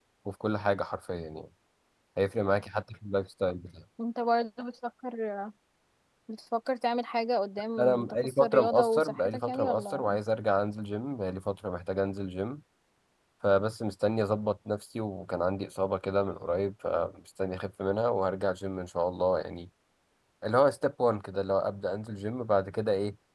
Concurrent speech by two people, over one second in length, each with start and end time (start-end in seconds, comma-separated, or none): 7.8-10.2